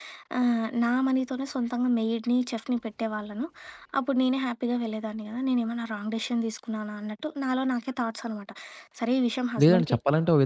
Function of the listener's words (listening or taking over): taking over